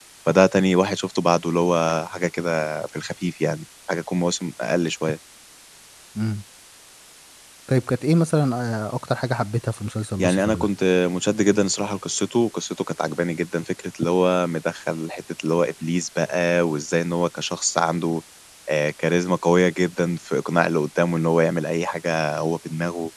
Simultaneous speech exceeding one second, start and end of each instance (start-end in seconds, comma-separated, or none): none